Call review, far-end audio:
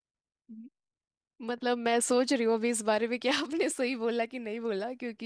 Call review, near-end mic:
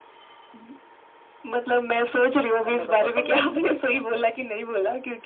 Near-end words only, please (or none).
अब मैं बताता हूँ याद करवाता हूँ आपका